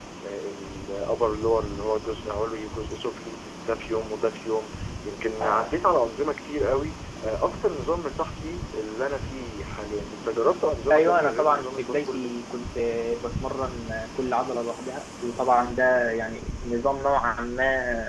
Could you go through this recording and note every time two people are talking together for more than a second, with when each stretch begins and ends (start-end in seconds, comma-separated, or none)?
10.9-12.3